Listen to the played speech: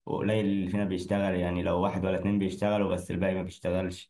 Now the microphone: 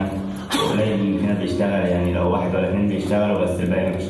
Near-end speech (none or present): none